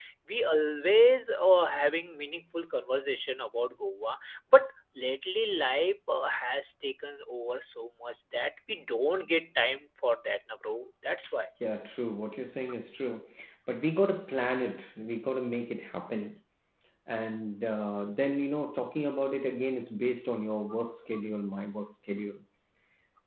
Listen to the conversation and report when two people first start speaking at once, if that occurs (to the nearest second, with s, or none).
none